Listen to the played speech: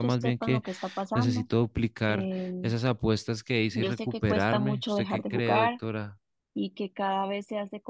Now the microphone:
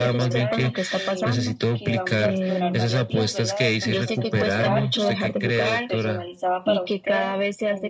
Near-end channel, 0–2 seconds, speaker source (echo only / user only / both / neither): both